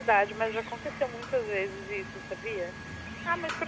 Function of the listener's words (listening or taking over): listening